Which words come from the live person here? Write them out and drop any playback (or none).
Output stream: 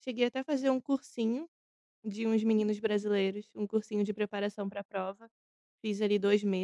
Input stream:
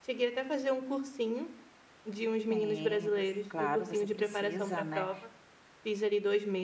Sim, você claro, você precisa, né.